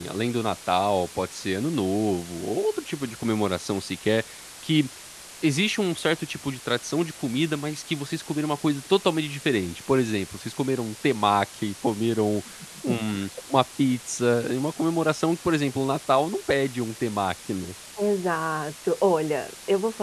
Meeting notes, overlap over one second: none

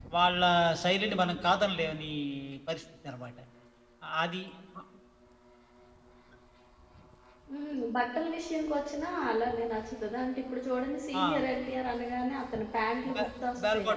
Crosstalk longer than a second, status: none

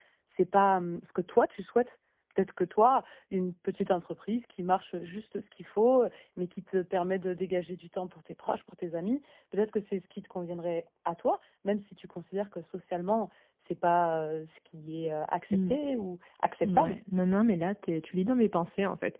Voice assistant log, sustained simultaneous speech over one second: none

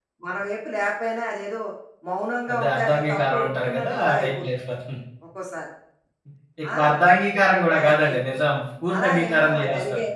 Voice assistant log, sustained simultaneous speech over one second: present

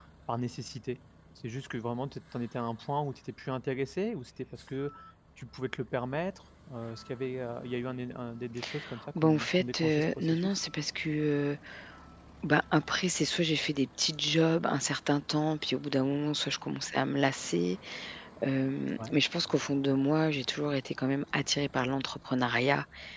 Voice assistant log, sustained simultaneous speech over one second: present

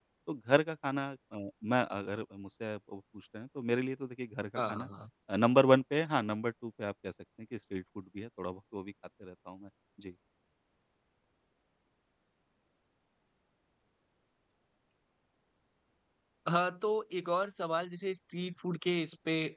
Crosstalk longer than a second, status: none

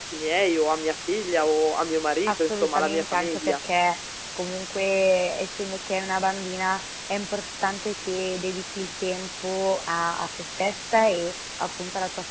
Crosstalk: present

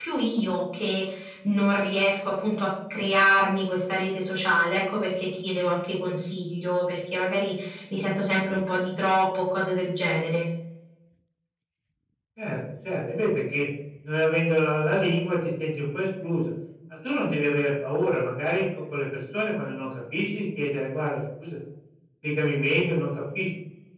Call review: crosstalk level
none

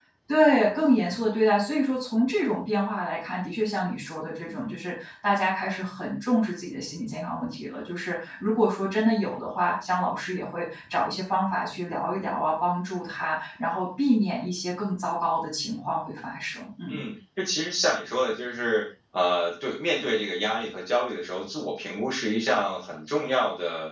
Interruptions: none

